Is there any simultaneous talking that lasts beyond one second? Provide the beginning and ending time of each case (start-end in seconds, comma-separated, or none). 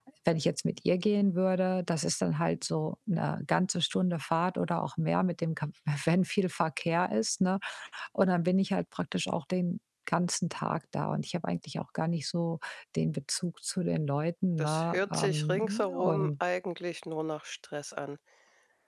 14.6-16.3